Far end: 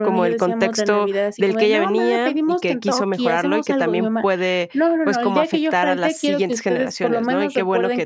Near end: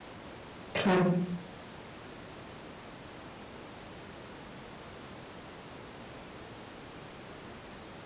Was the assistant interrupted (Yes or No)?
Yes